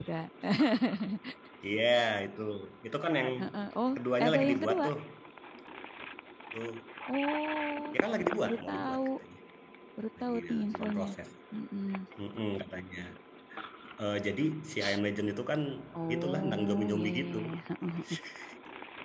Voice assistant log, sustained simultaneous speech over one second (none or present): present